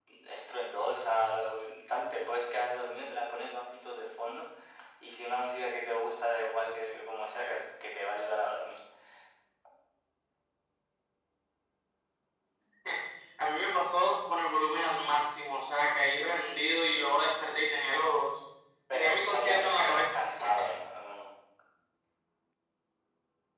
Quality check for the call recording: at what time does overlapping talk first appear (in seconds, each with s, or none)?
18.9 s